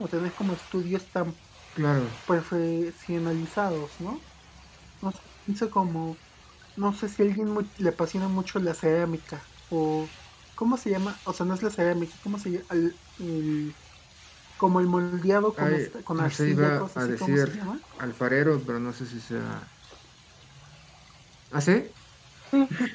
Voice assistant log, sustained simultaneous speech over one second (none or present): present